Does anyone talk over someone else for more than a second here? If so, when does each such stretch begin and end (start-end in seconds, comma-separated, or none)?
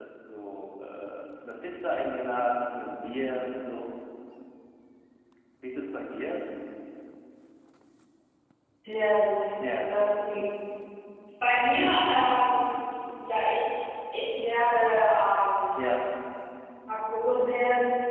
none